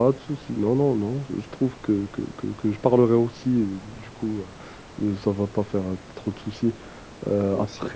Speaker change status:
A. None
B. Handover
A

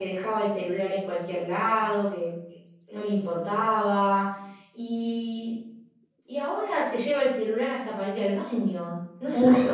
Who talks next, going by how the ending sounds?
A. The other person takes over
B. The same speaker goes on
A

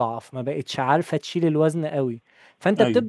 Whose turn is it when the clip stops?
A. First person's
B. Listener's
A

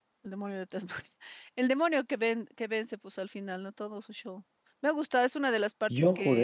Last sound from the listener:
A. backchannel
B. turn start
A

